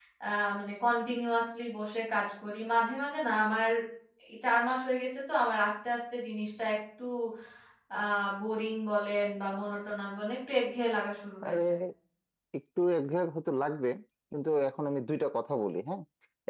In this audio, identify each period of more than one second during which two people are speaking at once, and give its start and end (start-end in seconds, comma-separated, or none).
none